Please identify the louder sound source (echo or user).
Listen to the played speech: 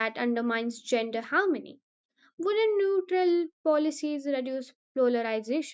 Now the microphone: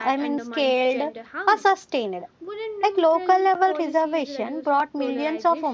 user